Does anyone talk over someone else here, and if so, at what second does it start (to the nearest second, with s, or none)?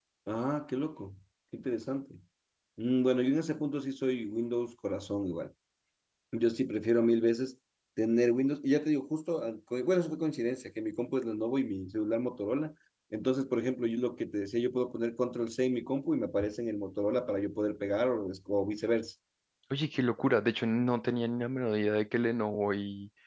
none